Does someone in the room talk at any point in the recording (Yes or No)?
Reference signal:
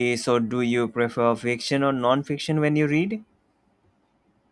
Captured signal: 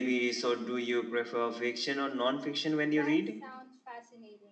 Yes